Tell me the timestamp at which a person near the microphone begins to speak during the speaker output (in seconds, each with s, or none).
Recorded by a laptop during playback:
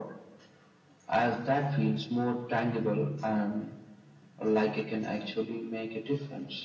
none